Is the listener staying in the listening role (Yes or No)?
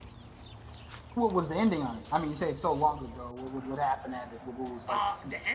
No